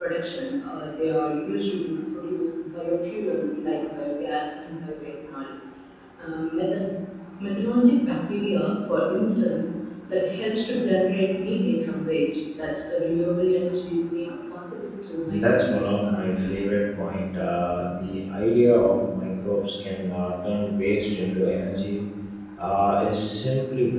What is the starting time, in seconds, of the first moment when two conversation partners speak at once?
15.3 s

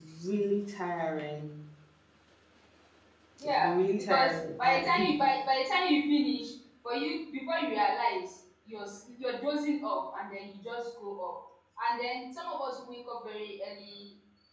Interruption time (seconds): 3.4 s

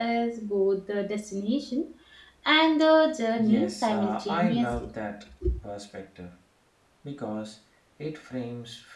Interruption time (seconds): 3.4 s

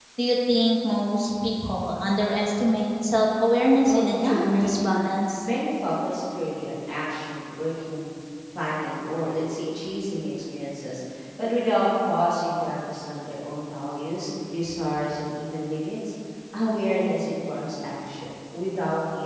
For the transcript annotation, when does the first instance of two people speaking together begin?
3.8 s

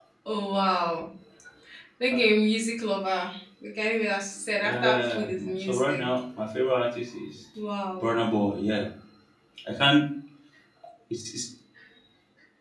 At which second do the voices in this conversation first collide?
4.6 s

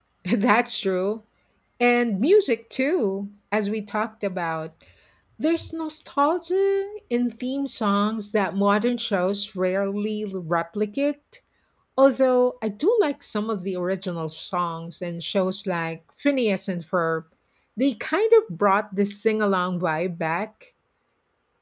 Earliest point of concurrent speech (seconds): none

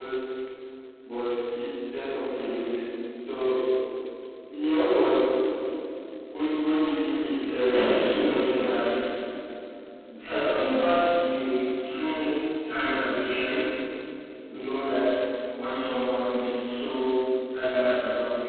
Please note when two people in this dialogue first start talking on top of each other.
7.4 s

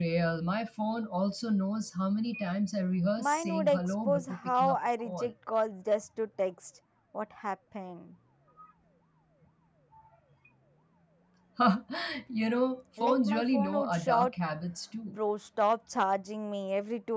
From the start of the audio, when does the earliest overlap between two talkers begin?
3.2 s

